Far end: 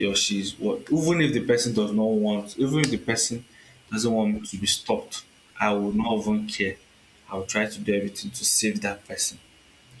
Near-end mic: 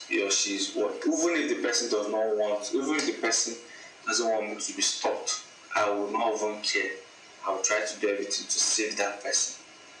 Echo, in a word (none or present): present